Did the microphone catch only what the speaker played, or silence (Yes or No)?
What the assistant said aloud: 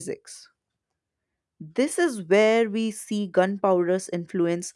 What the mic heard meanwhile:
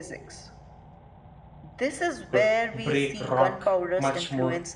No